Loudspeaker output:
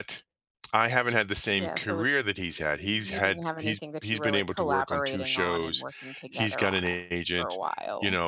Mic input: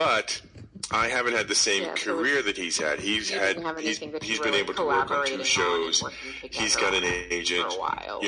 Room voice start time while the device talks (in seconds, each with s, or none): none